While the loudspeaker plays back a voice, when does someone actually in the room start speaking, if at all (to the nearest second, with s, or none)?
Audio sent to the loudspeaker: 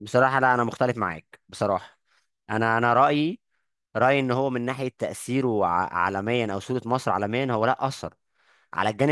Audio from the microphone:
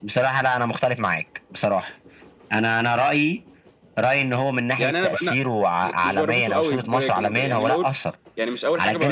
5 s